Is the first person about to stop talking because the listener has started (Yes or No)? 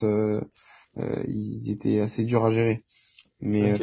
No